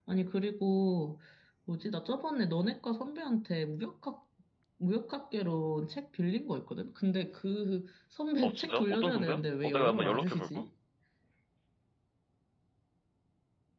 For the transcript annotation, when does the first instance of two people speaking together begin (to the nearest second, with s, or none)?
8 s